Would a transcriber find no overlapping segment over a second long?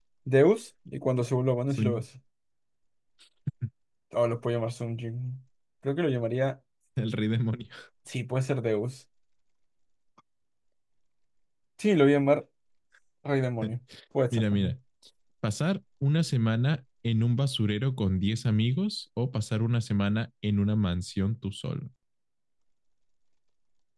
Yes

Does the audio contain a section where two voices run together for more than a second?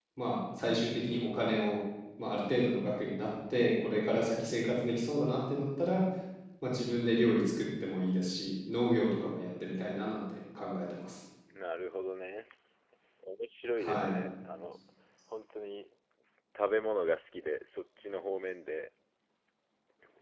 No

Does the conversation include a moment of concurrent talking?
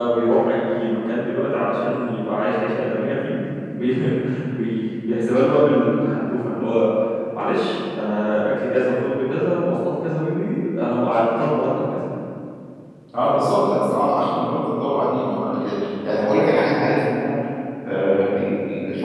No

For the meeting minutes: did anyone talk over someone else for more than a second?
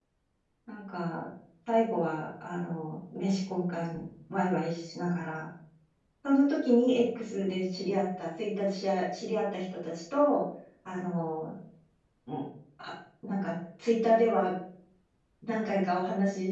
No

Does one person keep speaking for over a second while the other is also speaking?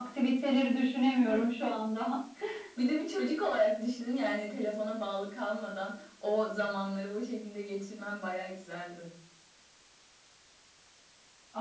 No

